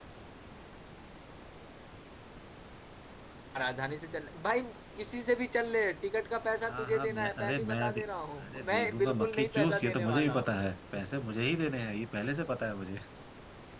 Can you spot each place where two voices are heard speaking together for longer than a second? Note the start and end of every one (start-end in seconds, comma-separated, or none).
6.6-8.0, 8.4-10.5